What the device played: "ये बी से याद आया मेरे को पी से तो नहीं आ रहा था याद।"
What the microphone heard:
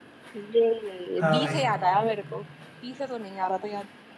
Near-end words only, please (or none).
हाँ भाई